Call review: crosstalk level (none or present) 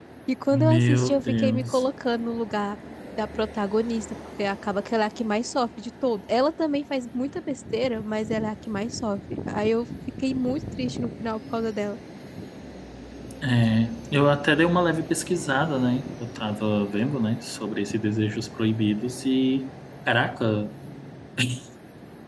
present